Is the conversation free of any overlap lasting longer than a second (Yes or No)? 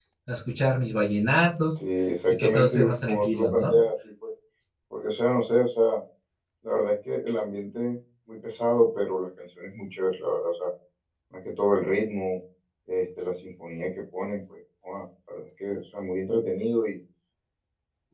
No